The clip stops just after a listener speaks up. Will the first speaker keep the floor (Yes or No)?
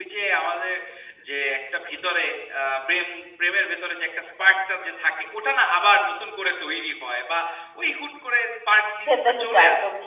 No